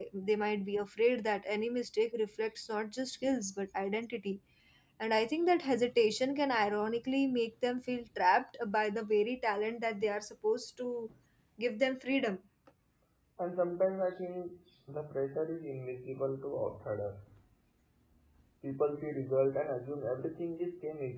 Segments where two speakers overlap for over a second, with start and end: none

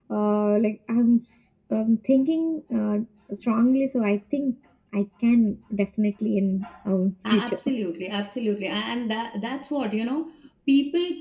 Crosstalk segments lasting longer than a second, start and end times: none

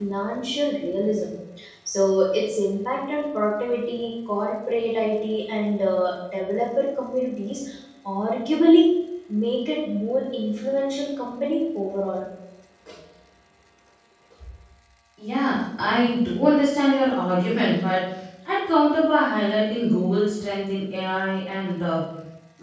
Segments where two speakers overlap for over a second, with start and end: none

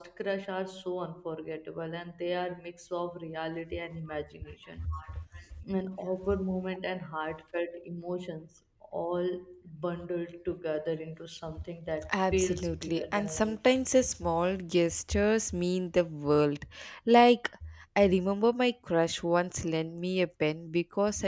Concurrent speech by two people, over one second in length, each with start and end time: 12.1-13.6

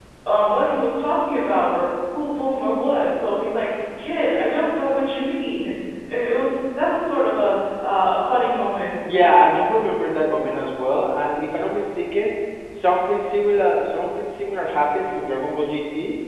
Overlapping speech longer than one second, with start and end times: none

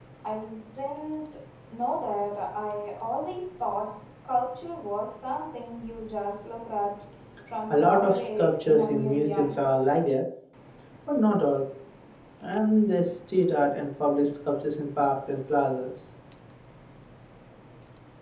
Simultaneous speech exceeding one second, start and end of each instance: 7.7-9.6

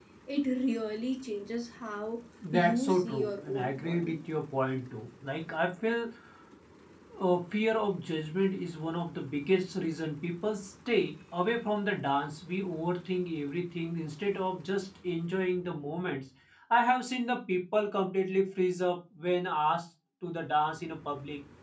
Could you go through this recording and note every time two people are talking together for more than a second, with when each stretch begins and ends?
2.5-4.2

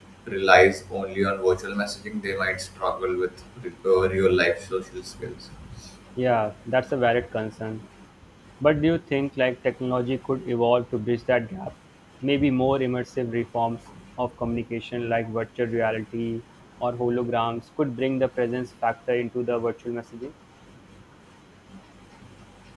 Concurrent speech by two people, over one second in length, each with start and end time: none

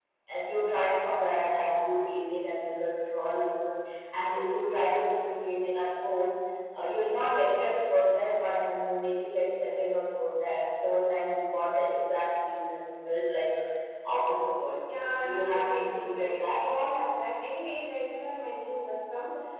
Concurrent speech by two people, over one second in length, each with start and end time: 15.2-16.5

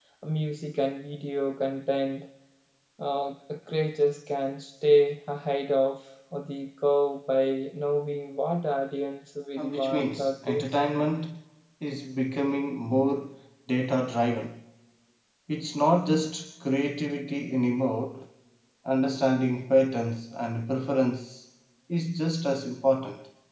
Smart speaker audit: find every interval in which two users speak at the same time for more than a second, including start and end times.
9.6-10.8

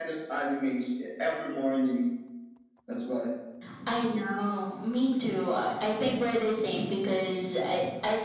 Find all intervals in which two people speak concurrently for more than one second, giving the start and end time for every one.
none

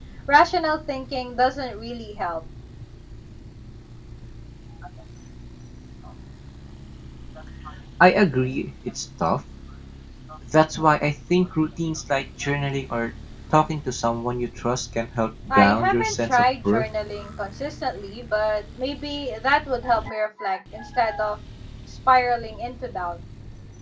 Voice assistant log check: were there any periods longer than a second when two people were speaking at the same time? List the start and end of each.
15.5-16.8

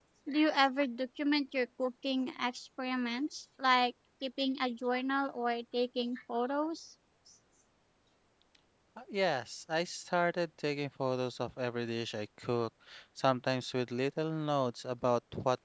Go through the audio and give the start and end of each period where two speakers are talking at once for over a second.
none

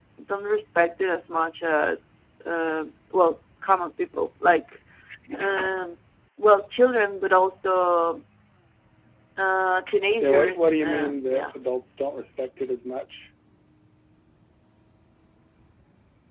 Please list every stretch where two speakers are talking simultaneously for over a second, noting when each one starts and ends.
10.2-11.5

